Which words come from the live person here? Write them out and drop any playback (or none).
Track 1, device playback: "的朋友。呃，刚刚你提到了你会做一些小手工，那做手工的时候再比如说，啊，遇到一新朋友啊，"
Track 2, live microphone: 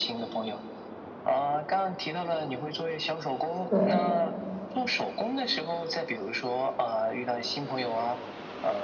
对。